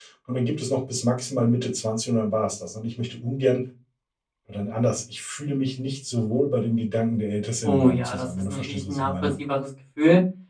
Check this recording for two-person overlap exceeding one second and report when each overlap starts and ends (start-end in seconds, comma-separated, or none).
7.6-9.3